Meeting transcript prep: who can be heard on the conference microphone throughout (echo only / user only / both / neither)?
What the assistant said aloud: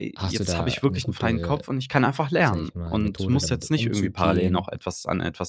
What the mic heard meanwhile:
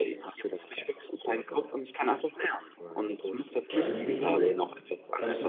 both